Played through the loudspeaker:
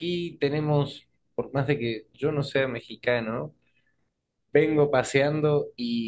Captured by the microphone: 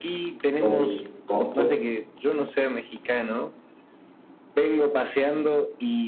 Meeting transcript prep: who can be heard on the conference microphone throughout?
both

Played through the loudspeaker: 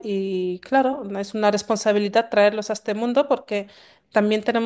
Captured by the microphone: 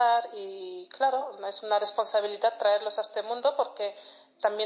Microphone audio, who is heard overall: echo only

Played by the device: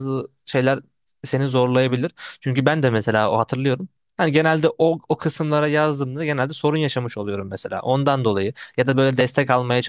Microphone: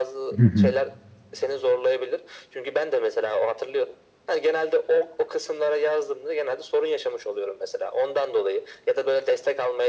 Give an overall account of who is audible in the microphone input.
both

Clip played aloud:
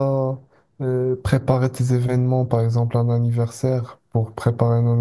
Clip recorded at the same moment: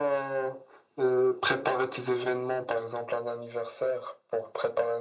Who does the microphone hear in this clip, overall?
echo only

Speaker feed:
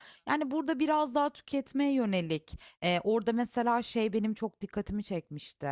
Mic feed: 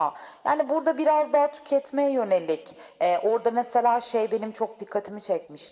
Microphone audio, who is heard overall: echo only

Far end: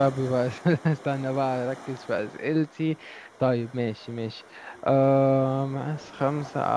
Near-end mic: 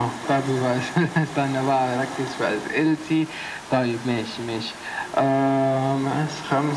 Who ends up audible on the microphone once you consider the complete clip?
echo only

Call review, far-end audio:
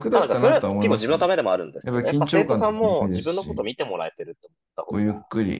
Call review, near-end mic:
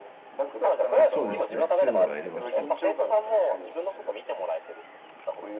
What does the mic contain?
both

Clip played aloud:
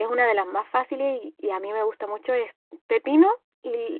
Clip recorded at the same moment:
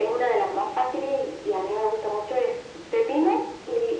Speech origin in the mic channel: echo only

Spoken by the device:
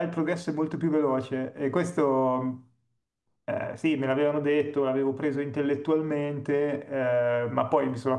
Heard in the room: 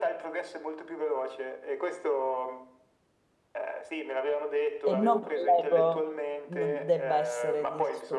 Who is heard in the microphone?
both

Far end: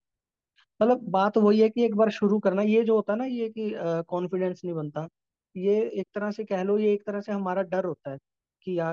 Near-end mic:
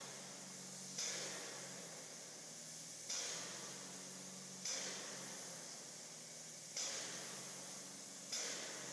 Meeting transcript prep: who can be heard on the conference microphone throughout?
neither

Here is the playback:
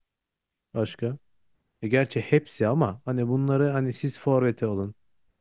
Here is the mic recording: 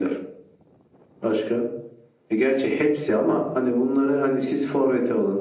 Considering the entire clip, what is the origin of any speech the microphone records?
echo only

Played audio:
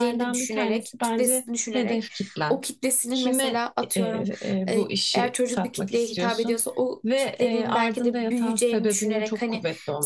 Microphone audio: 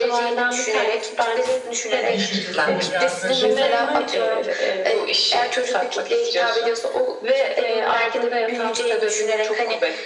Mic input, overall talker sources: both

